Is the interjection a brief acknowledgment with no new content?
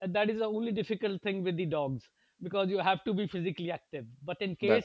Yes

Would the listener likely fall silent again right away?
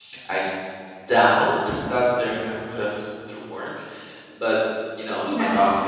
Yes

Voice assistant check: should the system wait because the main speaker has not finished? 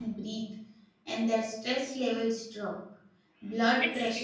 Yes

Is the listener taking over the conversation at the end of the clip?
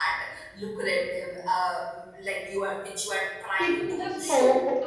Yes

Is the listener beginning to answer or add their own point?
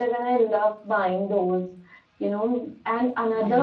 No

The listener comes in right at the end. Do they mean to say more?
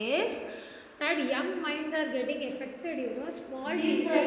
Yes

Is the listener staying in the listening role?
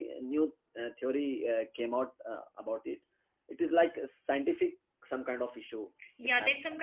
No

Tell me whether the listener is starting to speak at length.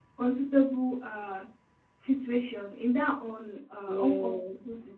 No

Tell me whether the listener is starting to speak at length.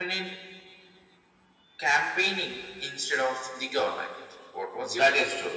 Yes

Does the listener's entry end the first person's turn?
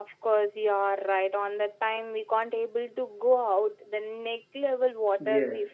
Yes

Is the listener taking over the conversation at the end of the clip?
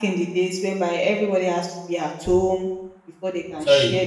Yes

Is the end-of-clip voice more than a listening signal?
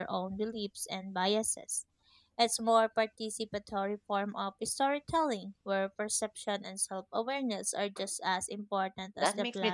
Yes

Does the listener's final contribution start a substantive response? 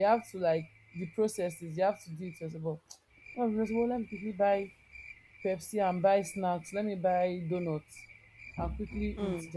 No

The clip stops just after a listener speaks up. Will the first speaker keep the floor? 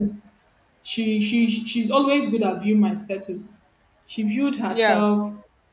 Yes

